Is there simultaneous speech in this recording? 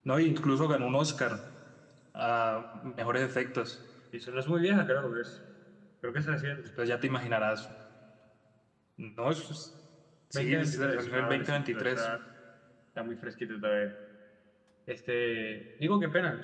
Yes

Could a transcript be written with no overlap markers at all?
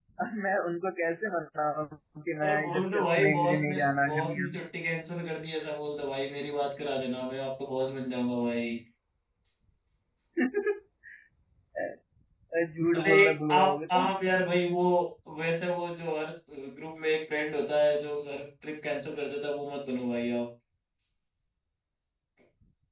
No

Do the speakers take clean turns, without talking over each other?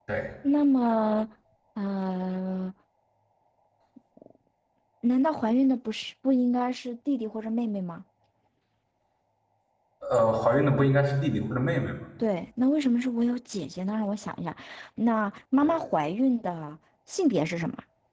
Yes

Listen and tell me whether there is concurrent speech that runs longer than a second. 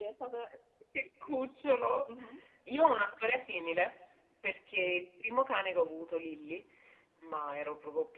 No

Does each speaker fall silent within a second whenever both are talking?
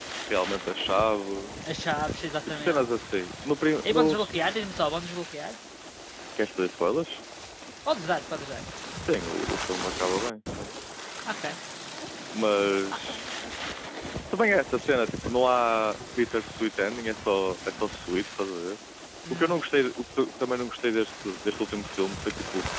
Yes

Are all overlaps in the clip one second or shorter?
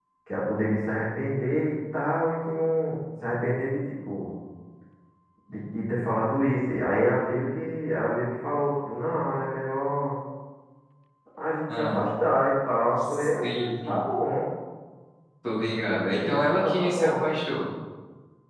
No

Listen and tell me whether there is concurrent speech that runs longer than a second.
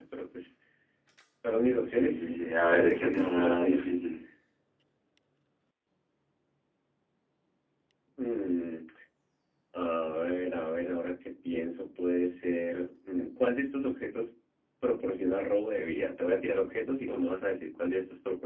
Yes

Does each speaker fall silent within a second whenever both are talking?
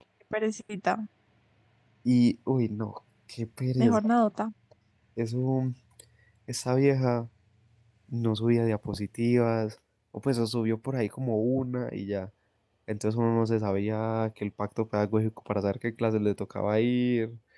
Yes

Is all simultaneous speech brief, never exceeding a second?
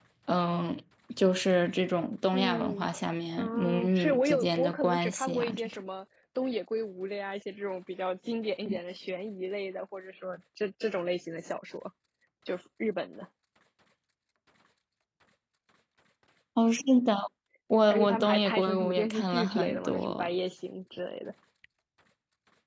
No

